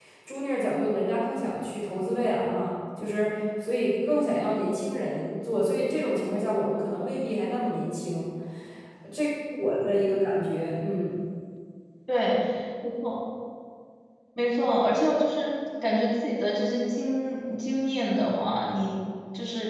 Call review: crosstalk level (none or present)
none